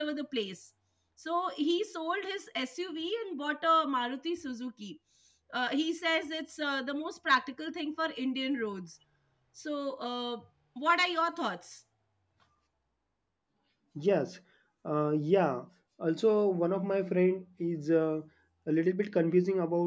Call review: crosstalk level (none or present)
none